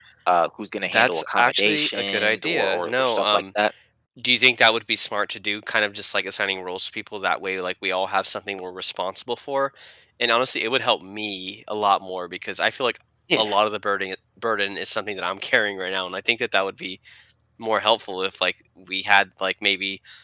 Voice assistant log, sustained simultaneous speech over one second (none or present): present